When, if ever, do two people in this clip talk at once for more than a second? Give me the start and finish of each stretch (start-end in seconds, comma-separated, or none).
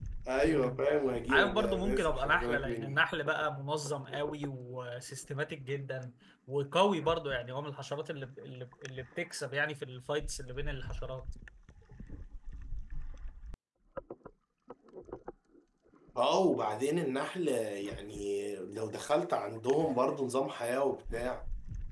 1.3-3.0